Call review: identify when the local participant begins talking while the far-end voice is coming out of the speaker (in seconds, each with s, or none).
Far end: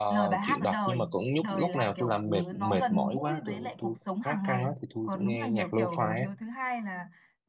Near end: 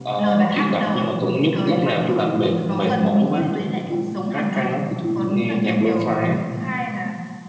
none